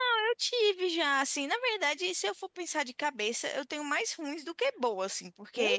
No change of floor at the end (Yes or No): Yes